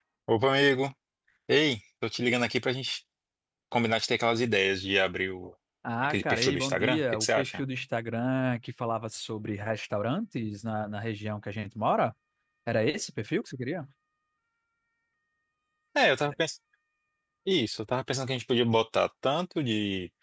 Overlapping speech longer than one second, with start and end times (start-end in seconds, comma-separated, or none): 6.0-7.6